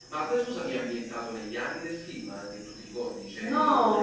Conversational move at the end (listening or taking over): taking over